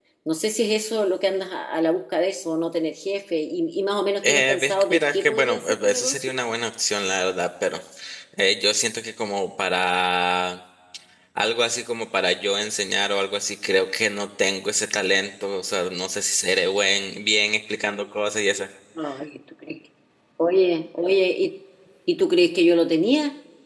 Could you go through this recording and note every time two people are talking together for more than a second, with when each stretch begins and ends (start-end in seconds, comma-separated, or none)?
4.2-6.4